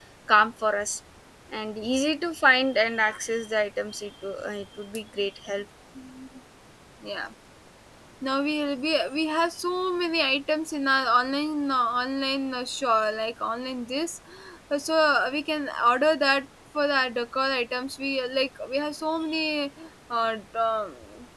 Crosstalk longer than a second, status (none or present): none